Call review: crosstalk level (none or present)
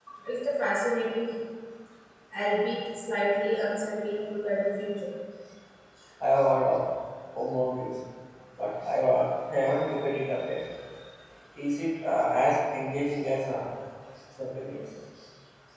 none